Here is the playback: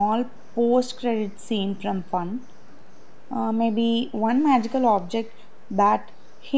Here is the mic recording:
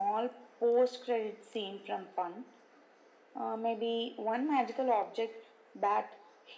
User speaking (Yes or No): No